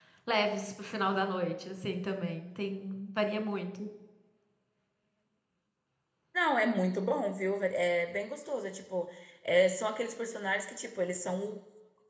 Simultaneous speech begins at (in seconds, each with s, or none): none